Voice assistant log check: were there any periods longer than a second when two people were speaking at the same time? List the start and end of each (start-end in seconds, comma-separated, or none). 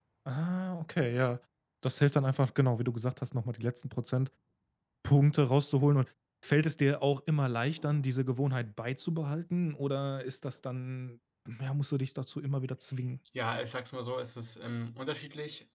none